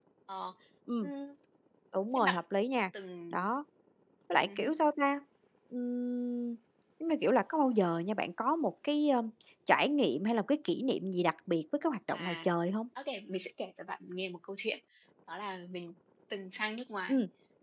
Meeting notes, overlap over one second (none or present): none